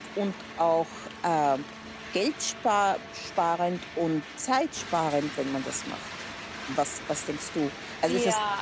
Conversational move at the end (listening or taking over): listening